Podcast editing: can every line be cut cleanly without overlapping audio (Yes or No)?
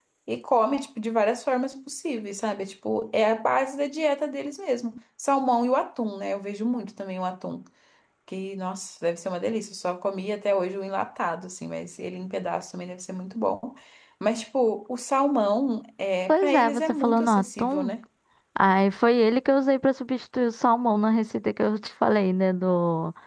No